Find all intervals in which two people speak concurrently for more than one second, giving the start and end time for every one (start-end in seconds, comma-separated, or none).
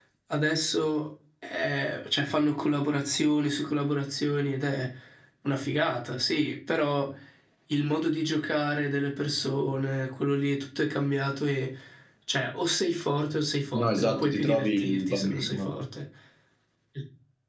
13.7-15.7